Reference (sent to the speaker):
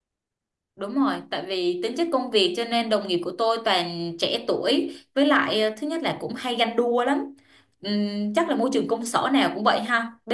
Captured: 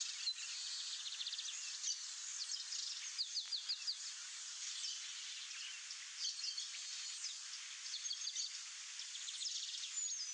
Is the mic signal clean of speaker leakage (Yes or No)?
Yes